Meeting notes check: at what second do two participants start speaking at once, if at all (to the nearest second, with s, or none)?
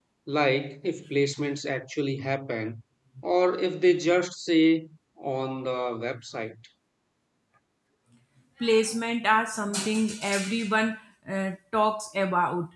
none